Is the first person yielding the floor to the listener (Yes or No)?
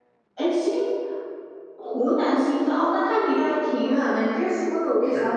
No